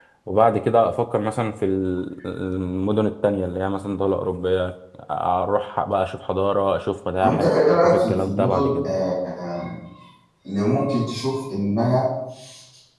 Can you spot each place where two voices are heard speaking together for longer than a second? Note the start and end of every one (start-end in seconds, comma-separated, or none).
7.2-8.9